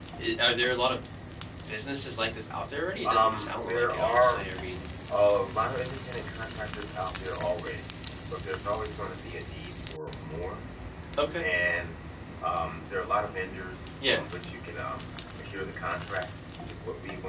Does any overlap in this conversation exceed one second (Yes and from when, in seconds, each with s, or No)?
Yes, from 3.0 s